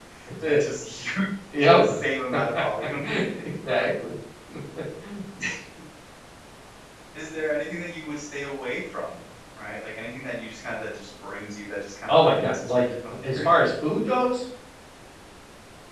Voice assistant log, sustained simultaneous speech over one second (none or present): present